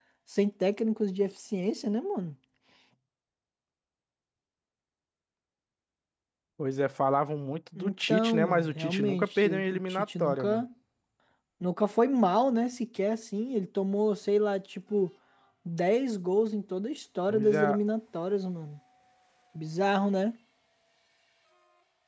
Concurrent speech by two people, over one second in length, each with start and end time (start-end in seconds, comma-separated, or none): 7.8-10.6